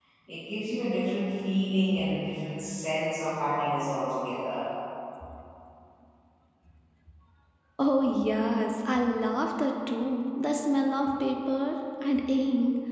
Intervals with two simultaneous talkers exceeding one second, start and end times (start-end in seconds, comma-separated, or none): none